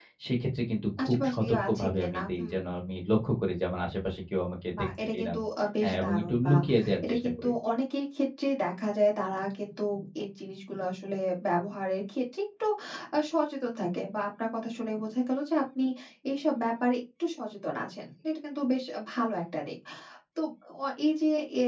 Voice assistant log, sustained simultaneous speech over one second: present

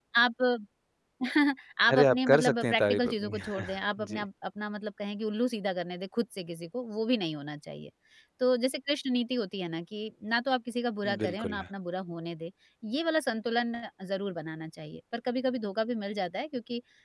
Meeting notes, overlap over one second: present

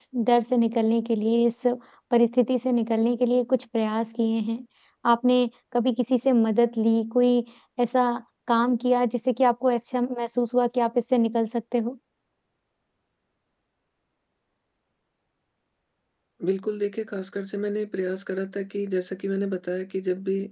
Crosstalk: none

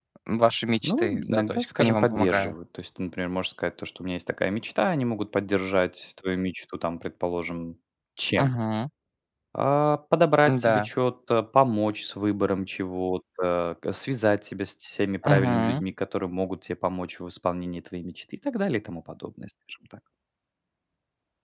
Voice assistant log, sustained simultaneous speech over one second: present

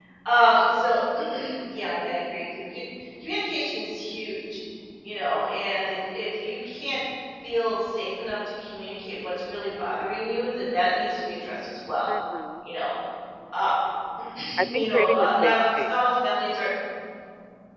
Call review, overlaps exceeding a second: present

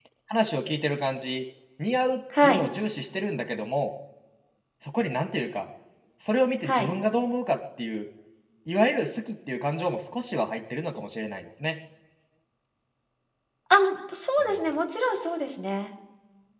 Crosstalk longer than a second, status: none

